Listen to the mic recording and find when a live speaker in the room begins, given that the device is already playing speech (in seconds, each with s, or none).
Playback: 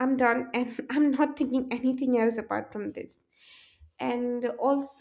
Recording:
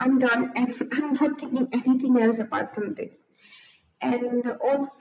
none